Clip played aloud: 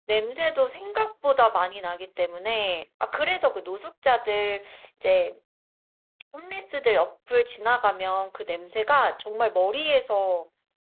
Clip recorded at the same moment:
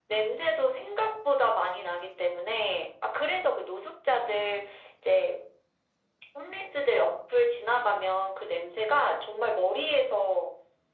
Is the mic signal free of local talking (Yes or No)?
Yes